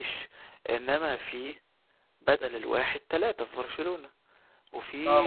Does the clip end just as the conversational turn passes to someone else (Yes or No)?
Yes